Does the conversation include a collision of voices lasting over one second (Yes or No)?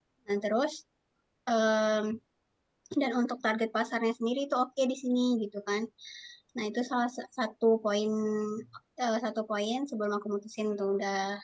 No